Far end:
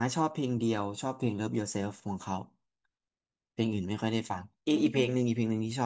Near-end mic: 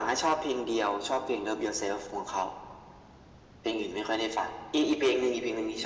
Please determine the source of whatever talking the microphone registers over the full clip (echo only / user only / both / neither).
echo only